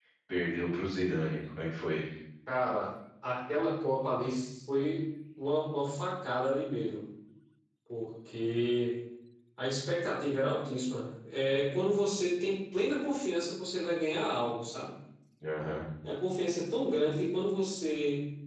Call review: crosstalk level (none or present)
none